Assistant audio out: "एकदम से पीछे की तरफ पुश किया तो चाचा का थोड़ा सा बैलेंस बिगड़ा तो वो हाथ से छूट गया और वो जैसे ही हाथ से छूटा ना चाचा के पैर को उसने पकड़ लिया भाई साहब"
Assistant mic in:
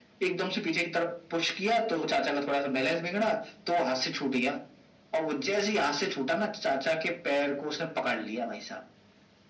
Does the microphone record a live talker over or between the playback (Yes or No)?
No